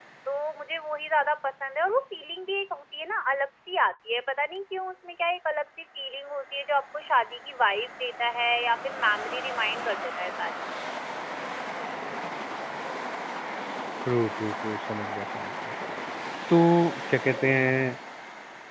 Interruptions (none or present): none